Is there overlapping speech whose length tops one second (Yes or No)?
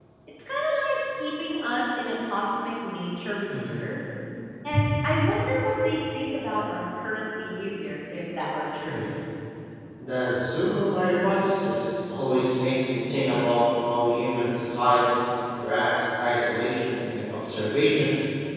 No